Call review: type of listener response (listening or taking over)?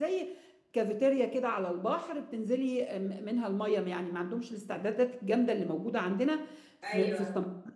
listening